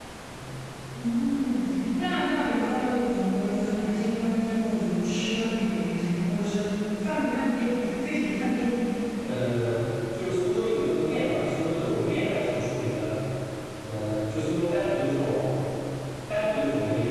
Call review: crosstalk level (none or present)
none